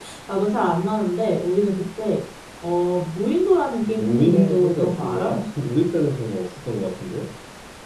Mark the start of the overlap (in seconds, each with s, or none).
3.8 s